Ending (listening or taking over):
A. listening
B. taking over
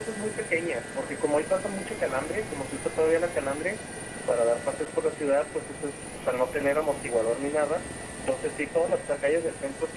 A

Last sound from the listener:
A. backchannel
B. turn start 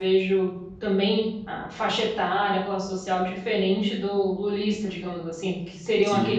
A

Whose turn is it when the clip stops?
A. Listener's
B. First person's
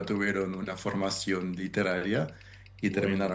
B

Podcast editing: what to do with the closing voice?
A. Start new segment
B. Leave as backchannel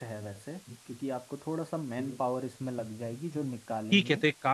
A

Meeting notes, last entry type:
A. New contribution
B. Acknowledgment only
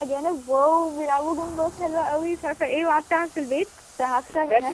A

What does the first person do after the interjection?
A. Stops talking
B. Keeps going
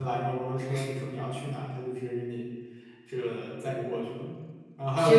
B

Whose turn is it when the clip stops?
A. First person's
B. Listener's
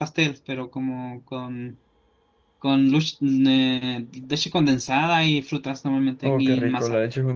B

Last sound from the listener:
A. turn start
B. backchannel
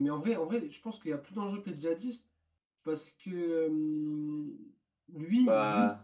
B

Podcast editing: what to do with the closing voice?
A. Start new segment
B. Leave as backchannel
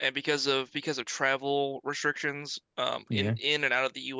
B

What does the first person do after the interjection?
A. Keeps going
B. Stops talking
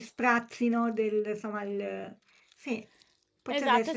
B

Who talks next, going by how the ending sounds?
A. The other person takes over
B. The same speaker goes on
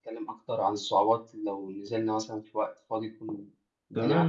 A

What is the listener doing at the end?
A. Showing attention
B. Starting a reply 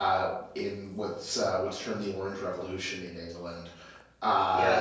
B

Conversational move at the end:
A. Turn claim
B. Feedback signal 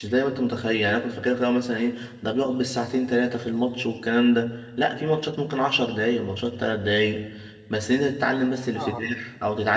B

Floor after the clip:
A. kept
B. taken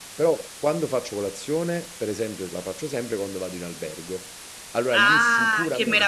B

